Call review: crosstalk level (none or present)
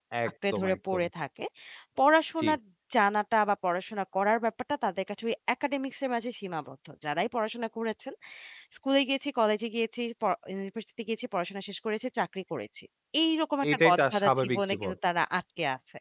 present